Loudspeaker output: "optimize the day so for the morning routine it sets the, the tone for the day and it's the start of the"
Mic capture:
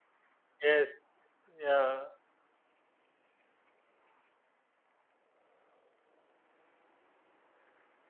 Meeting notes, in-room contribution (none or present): present